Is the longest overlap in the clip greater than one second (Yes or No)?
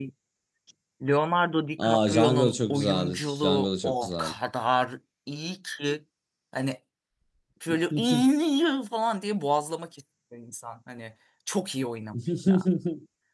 Yes